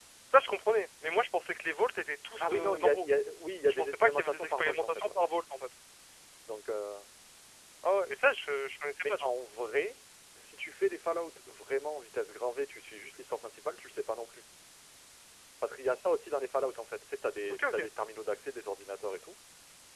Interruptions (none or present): present